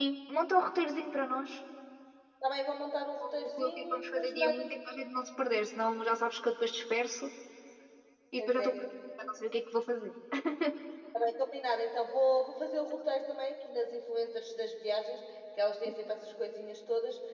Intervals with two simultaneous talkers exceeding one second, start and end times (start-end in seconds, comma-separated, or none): 3.2-4.7